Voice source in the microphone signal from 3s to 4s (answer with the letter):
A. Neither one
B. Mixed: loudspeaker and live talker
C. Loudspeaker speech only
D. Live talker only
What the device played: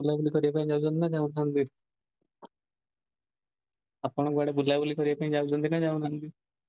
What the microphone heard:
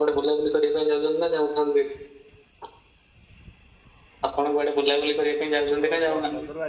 A